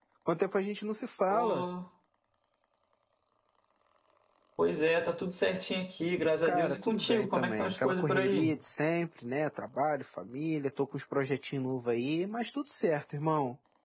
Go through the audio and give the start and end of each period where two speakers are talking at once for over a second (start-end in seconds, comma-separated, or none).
6.5-8.5